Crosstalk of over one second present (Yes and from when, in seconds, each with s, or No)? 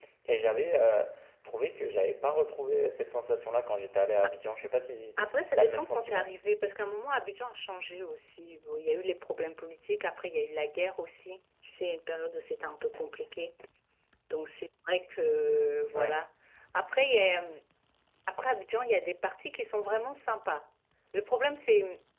Yes, from 5.2 s